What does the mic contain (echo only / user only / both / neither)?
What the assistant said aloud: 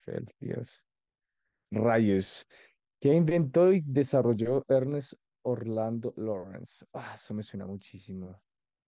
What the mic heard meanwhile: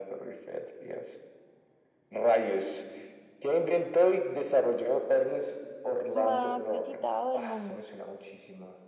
both